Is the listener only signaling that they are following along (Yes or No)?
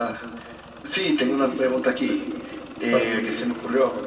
Yes